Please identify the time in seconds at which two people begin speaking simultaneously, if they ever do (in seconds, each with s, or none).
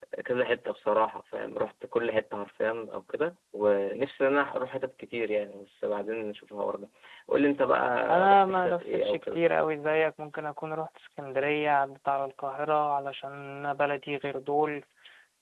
8.1 s